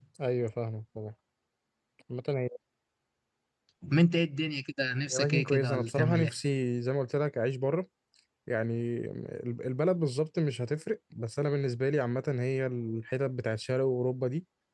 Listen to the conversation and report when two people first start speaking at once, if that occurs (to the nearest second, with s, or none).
5 s